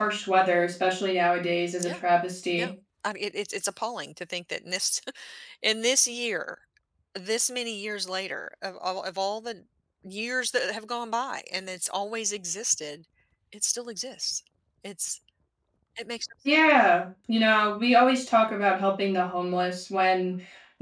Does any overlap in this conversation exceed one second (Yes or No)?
No